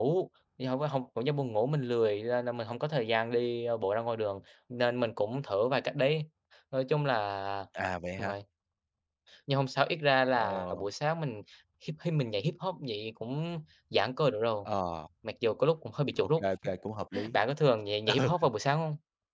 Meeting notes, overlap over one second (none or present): none